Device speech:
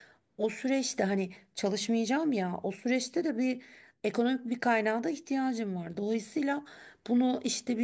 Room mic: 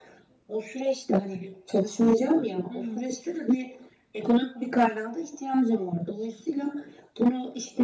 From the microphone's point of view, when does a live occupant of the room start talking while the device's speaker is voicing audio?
2.7 s

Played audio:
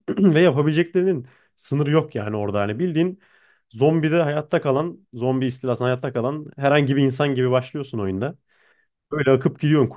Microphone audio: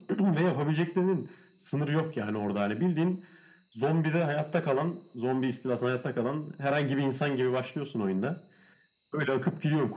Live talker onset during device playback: none

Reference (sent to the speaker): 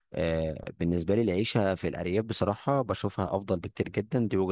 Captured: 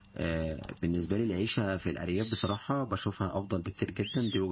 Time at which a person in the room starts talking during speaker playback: none

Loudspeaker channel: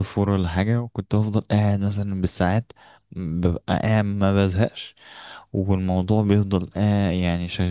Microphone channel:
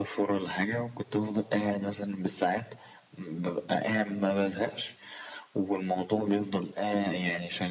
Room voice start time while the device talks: none

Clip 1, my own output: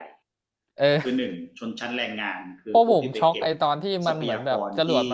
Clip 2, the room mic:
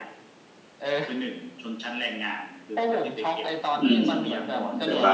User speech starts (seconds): 3.8 s

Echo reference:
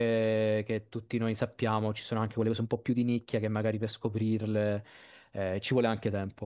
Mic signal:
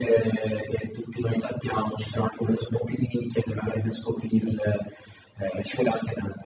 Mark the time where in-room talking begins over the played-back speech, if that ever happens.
none

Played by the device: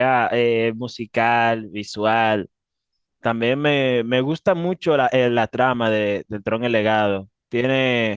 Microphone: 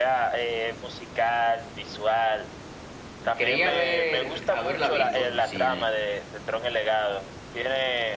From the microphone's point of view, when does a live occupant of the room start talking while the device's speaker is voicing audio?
3.3 s

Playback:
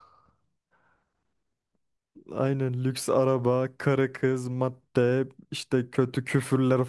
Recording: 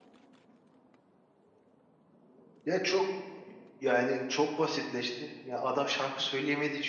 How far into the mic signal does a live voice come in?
2.6 s

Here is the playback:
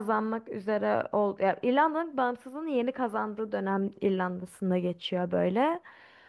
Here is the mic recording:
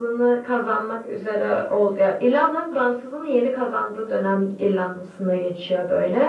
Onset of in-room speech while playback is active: none

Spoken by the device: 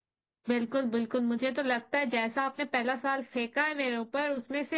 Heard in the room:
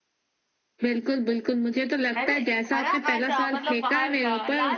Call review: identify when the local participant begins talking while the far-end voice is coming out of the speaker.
2.2 s

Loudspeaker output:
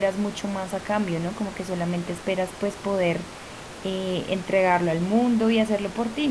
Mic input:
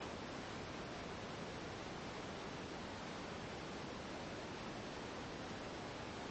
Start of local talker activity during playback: none

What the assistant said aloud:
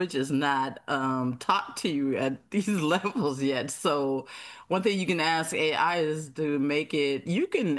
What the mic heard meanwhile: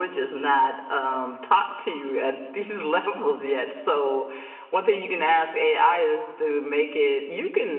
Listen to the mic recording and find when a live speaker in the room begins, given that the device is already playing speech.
none

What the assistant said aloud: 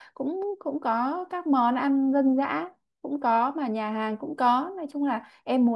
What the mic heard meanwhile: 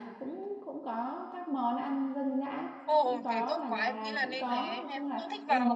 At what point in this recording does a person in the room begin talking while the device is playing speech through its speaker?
2.8 s

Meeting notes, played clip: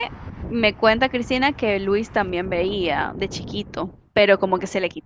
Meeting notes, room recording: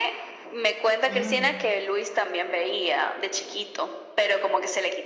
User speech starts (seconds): 1.1 s

